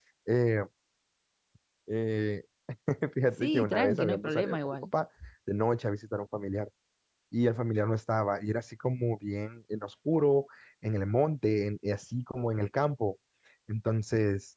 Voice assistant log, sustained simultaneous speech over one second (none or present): present